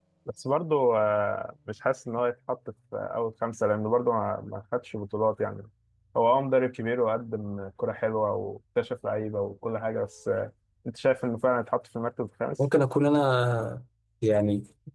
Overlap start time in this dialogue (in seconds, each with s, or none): none